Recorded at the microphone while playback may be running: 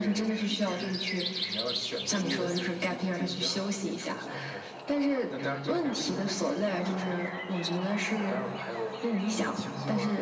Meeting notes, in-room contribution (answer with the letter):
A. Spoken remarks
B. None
B